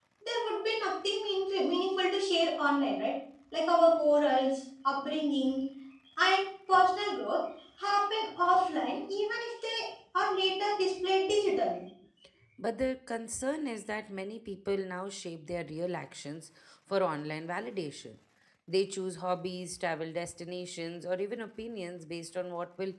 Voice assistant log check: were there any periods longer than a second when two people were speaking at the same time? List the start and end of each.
none

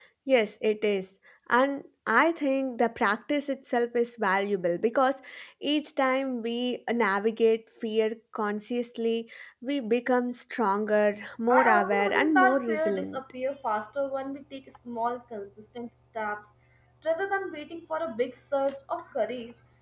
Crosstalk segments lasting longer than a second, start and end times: 11.5-13.2

